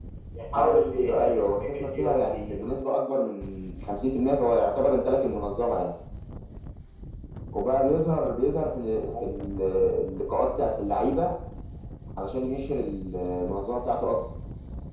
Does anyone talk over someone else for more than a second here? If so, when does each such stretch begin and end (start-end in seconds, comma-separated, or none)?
0.6-2.7